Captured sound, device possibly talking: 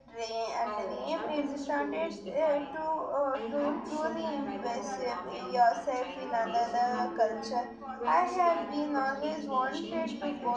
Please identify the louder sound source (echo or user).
user